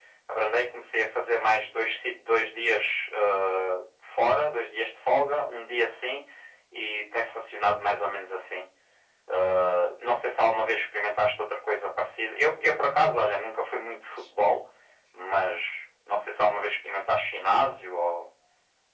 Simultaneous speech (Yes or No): No